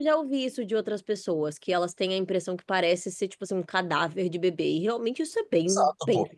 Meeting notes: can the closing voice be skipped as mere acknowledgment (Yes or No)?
No